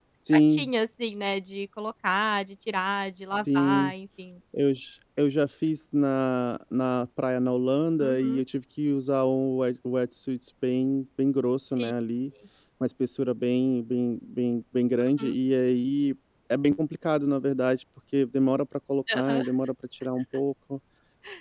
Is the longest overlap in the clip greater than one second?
No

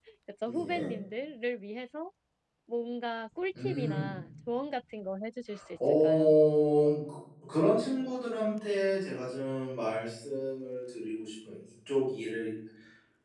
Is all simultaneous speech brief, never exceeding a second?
Yes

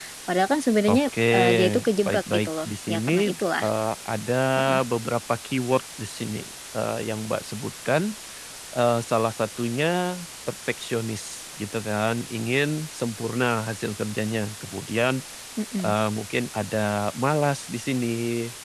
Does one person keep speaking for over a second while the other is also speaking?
Yes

